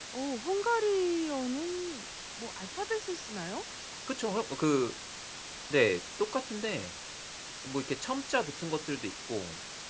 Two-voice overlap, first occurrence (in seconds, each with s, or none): none